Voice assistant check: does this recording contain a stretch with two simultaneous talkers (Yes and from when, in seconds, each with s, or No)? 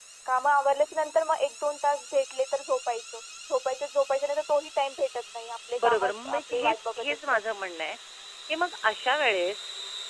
Yes, from 5.8 s